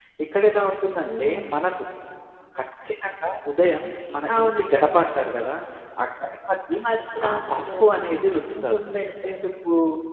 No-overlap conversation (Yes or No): No